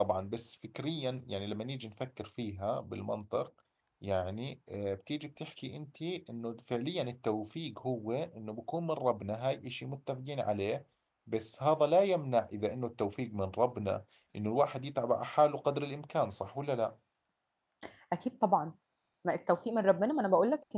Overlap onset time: none

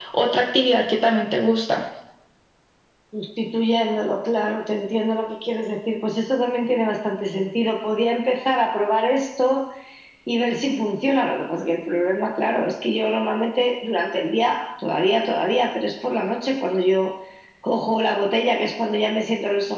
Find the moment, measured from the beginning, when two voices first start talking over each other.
none

